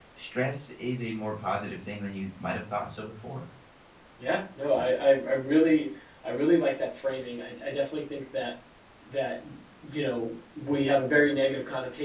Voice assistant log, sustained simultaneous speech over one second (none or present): none